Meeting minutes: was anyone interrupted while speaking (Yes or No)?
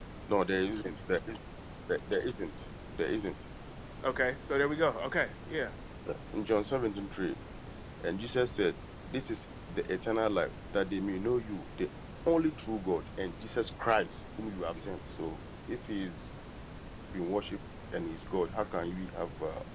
No